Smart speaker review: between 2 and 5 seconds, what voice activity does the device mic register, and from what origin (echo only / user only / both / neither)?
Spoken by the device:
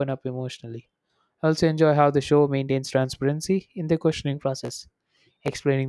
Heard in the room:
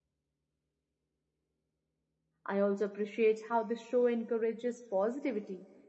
user only